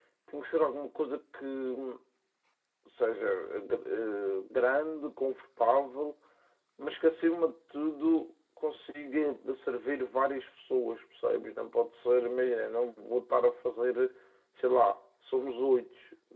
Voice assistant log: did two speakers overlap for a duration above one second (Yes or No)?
No